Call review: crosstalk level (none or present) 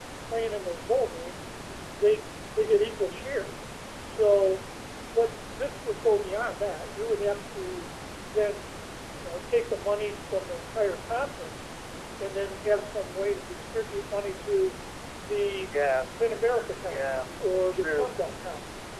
present